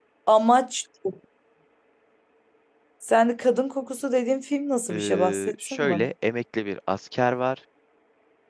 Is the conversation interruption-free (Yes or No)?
No